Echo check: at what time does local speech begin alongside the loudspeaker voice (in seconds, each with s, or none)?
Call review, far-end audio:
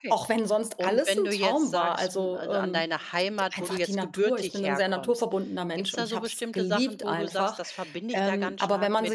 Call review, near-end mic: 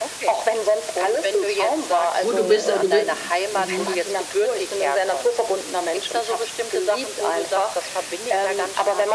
2.2 s